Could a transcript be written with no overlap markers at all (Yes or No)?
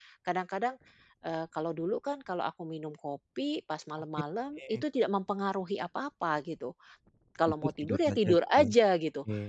No